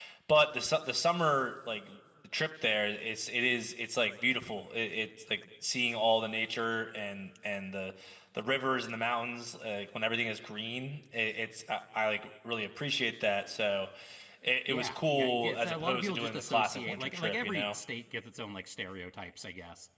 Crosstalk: present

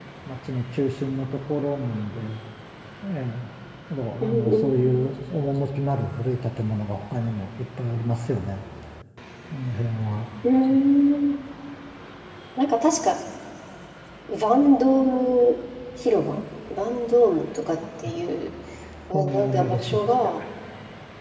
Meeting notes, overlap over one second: present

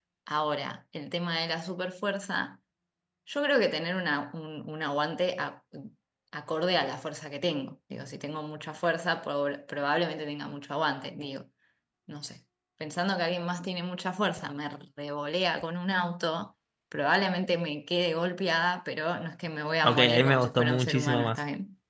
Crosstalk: present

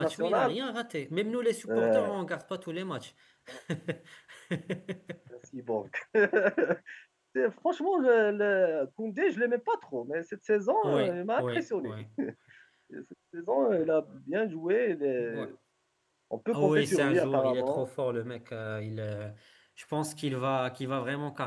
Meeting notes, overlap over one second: present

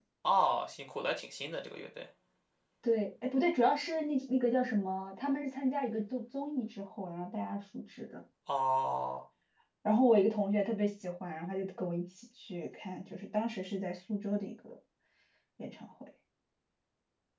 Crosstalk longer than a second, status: none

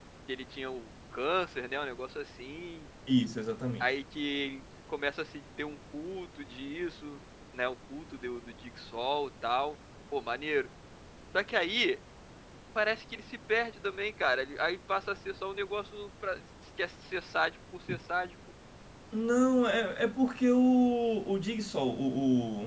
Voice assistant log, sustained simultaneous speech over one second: none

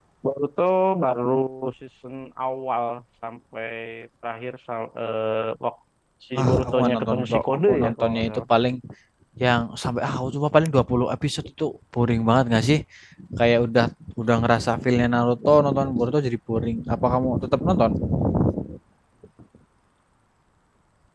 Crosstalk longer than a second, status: present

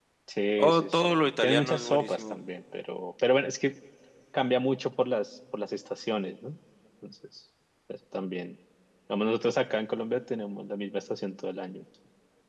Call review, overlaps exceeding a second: present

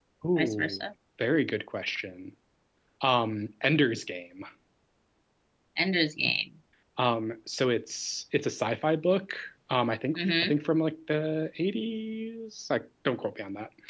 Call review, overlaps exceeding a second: none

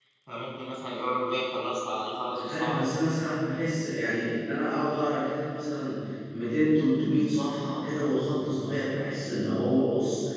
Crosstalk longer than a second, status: none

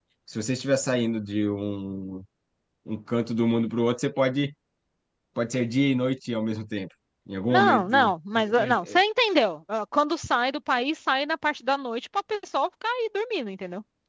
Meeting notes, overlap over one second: present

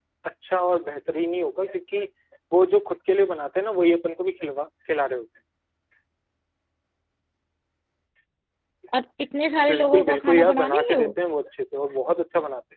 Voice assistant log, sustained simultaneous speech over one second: present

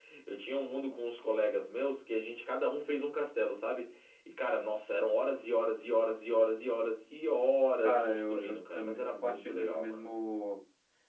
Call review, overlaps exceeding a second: present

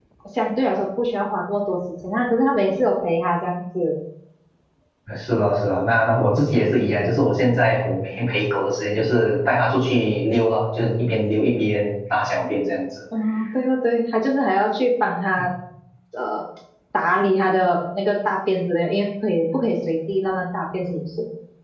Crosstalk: none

